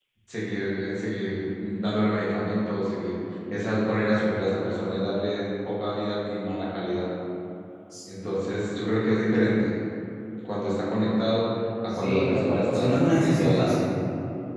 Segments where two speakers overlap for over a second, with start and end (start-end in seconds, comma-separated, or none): 11.9-13.8